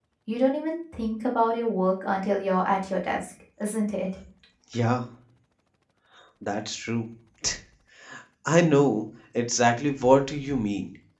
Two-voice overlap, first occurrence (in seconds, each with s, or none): none